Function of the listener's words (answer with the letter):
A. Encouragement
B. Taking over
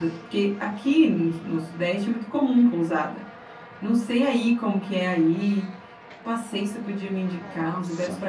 A